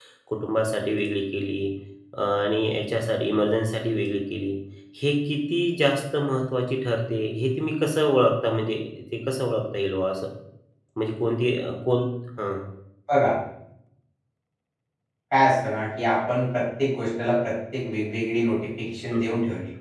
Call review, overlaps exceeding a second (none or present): none